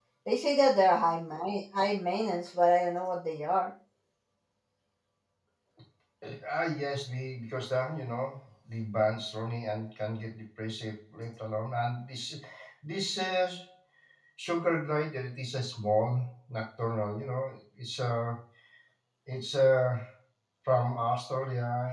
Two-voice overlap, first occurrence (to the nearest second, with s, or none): none